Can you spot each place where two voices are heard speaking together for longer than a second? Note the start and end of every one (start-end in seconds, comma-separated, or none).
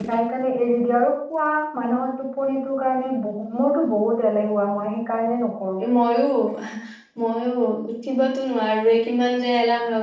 none